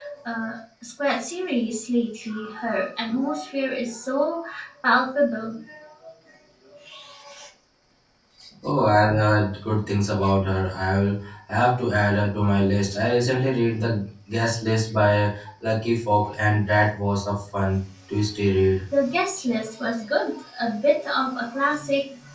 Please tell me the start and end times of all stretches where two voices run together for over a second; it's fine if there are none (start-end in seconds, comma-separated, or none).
none